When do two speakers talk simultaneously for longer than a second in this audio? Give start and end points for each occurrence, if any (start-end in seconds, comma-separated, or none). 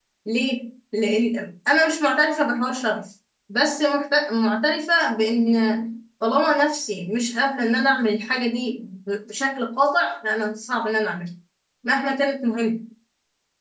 none